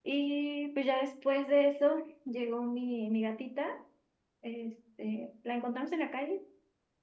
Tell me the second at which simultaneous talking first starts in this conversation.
none

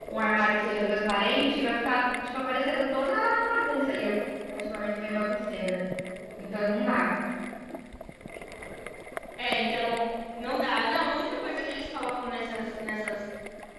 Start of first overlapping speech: none

